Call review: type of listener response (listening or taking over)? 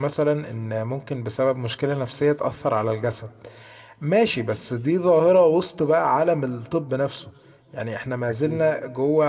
listening